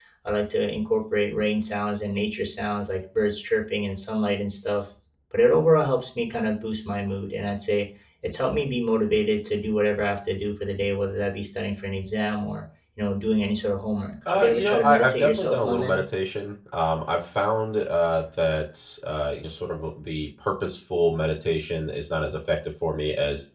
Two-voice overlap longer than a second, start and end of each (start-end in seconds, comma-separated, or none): 14.3-16.0